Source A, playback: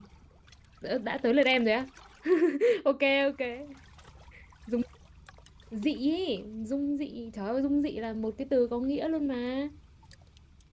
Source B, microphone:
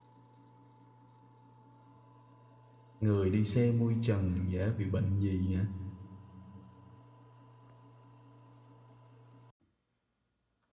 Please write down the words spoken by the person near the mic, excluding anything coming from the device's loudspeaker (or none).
người đi xe mui trần dễ bị bệnh gì hả